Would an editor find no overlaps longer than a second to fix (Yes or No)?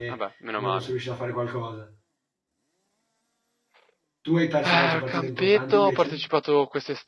No